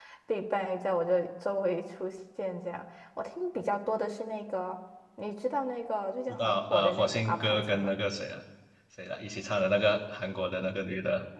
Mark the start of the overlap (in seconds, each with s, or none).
6.3 s